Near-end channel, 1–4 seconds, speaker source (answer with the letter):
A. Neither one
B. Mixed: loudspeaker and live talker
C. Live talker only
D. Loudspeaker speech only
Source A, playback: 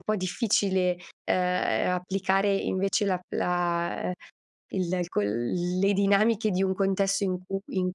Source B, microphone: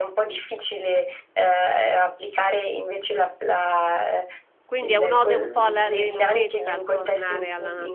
D